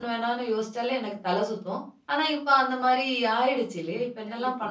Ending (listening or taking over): taking over